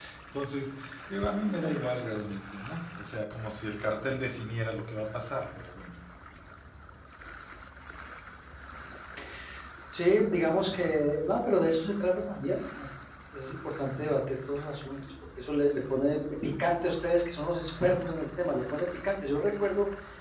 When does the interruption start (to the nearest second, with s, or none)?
none